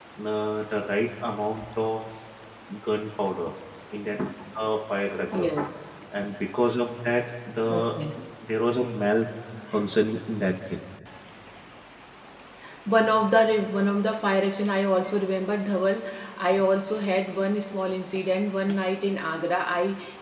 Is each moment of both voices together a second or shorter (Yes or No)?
Yes